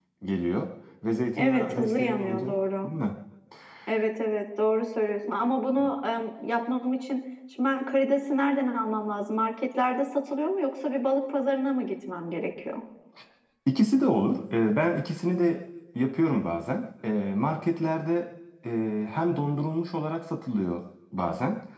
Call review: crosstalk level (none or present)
present